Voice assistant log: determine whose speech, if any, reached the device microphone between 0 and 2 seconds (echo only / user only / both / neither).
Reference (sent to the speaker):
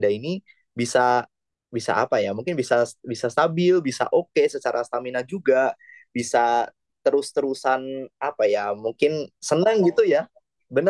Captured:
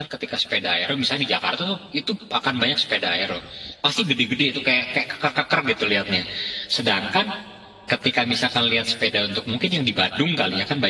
user only